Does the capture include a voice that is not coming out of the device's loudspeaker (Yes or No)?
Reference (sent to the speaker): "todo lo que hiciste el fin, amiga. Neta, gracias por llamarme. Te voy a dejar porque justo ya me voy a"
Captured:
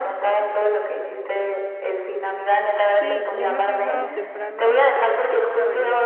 Yes